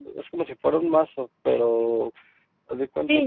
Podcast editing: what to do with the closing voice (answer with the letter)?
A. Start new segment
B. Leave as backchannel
A